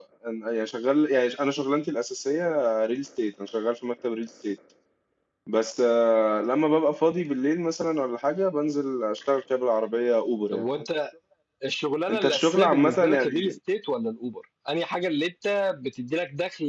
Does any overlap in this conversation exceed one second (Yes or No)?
Yes